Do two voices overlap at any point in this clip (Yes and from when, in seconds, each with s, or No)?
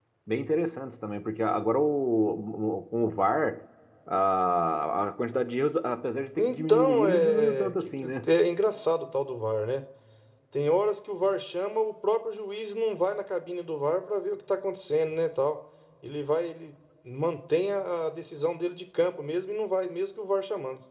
Yes, from 6.4 s